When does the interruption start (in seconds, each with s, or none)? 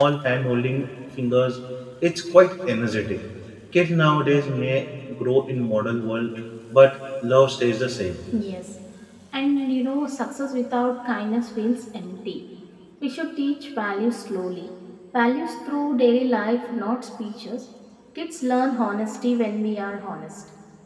none